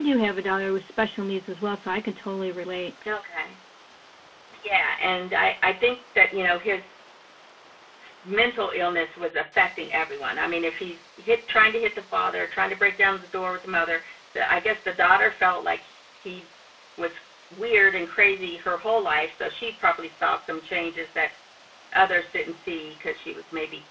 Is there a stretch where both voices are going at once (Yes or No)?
No